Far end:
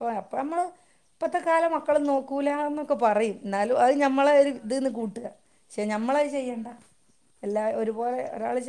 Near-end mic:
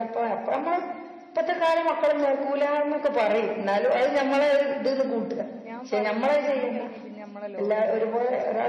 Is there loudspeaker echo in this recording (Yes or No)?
Yes